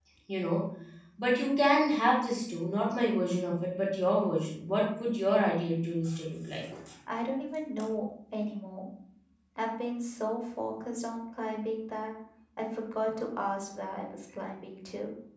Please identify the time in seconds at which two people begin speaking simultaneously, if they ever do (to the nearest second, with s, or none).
none